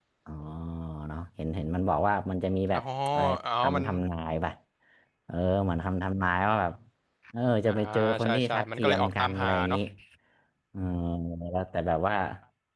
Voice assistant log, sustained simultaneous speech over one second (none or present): present